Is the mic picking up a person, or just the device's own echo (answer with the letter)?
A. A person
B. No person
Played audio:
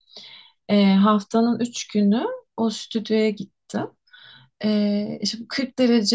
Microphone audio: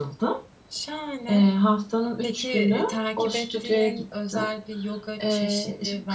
A